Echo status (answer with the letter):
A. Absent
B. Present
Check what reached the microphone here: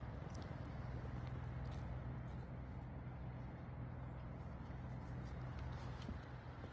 A